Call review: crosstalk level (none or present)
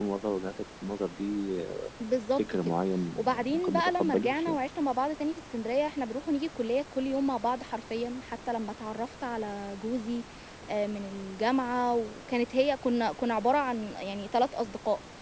present